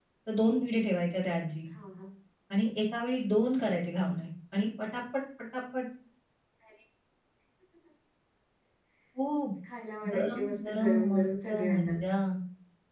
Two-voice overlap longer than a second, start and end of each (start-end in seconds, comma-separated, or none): 10.1-11.9